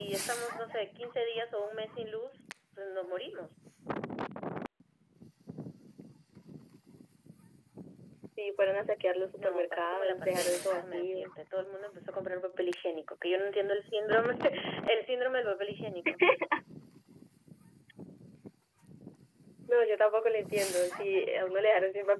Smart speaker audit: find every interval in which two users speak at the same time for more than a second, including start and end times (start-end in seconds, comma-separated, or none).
9.4-11.3